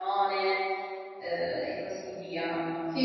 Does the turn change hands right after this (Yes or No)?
Yes